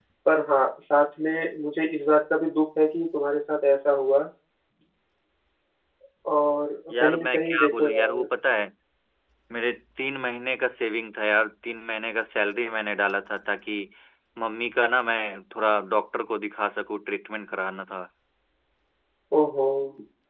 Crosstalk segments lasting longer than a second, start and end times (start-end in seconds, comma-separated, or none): 6.9-8.2